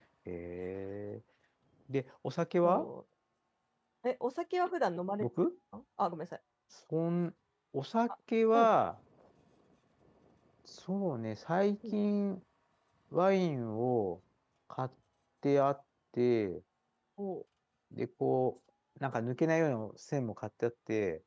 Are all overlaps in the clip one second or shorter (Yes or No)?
Yes